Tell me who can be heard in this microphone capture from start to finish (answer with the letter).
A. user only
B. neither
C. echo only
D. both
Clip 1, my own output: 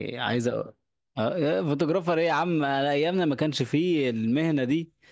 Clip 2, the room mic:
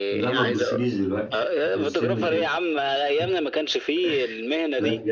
D